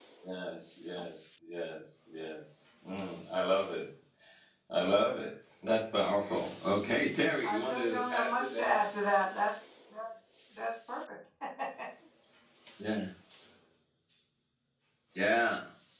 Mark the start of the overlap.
7.4 s

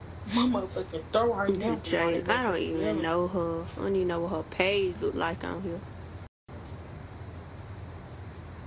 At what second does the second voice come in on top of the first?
1.5 s

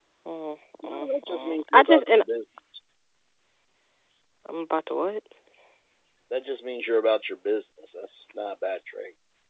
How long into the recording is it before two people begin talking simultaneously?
0.8 s

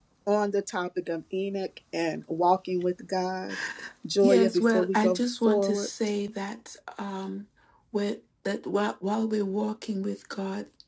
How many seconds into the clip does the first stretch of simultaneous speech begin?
4.2 s

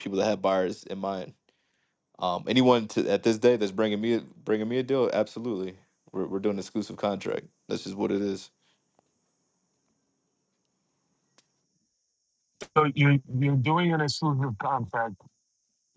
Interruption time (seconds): none

